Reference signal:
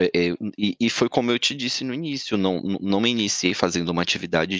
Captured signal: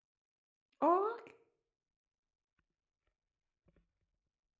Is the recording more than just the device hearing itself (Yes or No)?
Yes